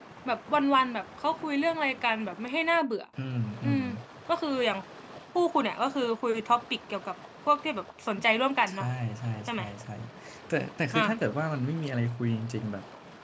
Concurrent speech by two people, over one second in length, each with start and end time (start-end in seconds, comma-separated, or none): none